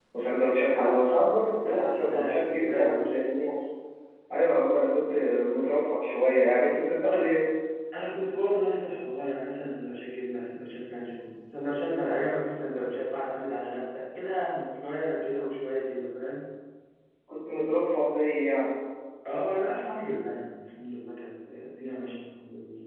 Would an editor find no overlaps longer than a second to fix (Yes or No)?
No